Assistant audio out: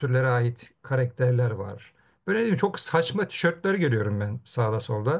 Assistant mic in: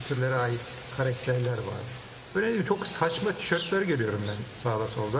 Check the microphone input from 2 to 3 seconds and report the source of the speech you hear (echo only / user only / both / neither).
echo only